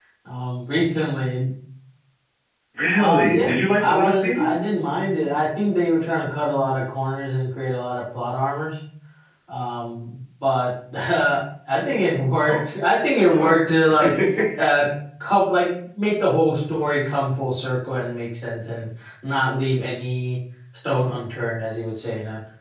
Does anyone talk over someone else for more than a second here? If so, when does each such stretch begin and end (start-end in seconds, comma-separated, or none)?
3.0-4.6